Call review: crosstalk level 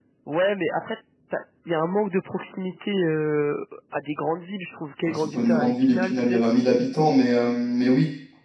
present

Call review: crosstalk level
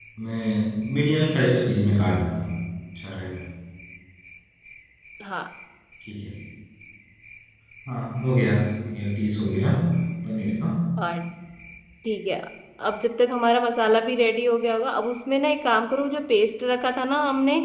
none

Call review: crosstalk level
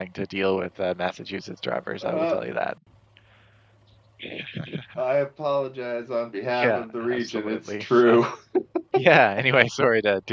present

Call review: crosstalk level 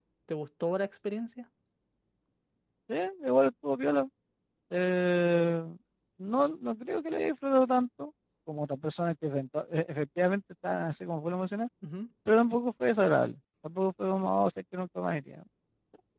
none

